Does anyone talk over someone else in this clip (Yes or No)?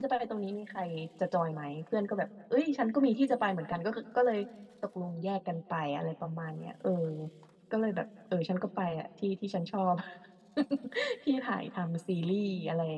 No